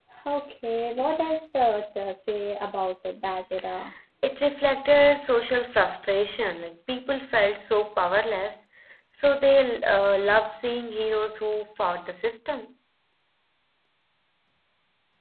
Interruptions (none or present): none